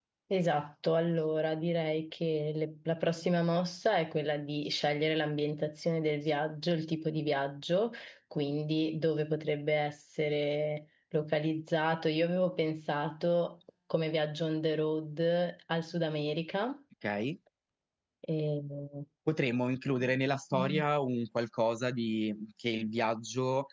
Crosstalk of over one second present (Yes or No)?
No